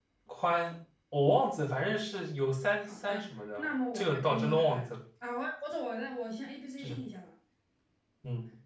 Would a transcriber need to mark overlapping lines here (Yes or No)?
Yes